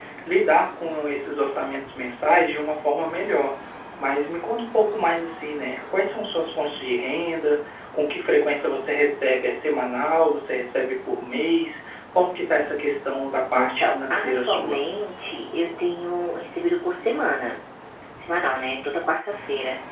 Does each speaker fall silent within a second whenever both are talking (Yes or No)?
No